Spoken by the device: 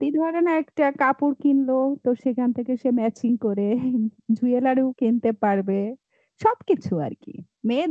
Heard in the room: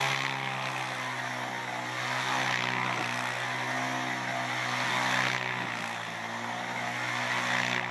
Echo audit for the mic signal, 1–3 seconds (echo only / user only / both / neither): neither